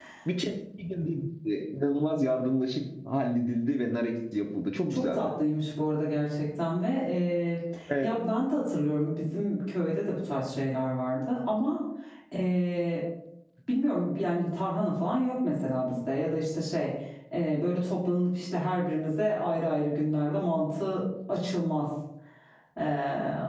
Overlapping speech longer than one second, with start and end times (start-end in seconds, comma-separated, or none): none